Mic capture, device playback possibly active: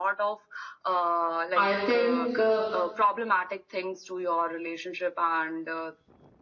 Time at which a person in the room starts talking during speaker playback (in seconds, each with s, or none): 1.6 s